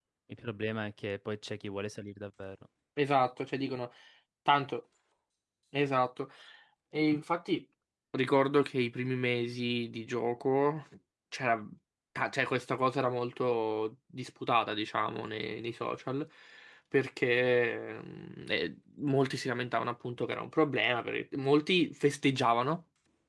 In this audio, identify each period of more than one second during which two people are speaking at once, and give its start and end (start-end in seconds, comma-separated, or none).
none